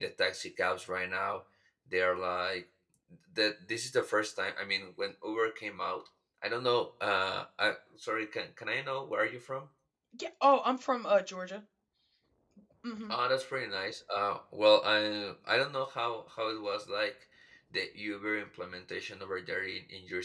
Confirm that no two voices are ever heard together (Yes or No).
Yes